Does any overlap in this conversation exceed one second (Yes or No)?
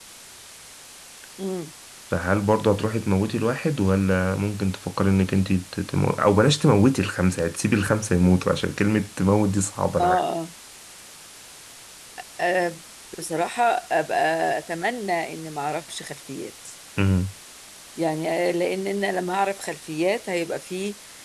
No